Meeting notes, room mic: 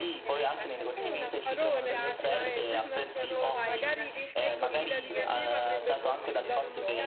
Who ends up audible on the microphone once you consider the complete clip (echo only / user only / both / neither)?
both